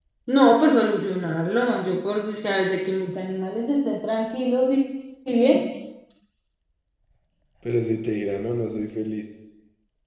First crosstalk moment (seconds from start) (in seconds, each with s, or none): none